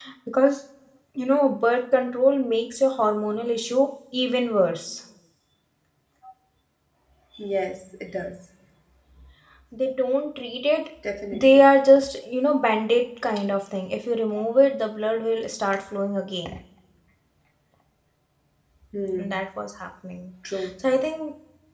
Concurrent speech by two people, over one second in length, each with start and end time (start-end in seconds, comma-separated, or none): none